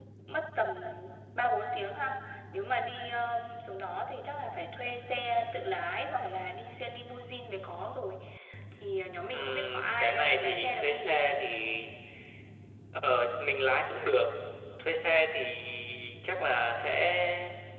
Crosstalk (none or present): present